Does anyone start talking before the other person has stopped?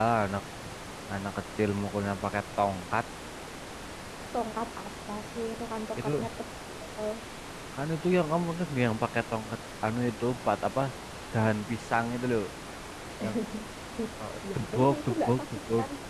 Yes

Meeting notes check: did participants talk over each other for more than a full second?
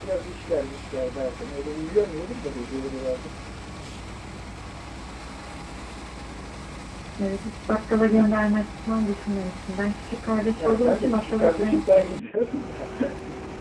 Yes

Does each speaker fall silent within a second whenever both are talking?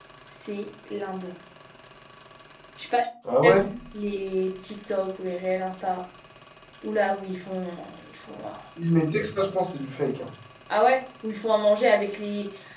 Yes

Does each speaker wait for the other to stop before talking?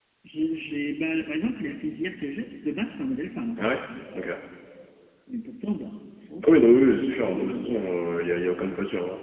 No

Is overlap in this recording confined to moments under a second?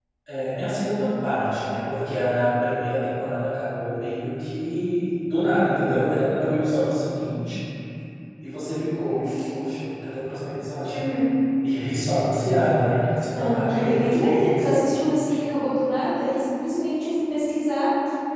No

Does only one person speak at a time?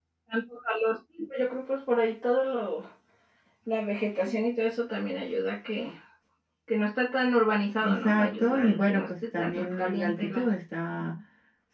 No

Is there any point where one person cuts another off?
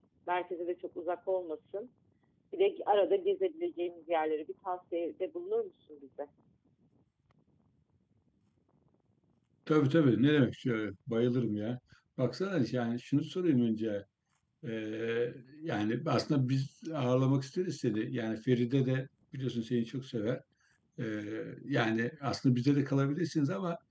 No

